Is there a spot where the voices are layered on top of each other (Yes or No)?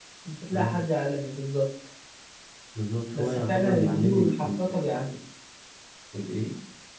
Yes